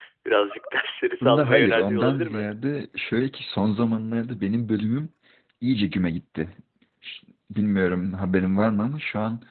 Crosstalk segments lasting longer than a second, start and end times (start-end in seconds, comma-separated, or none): 1.2-2.4